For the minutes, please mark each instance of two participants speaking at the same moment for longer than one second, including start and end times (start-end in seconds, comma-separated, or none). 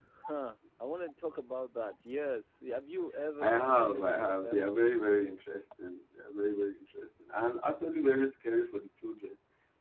3.4-4.6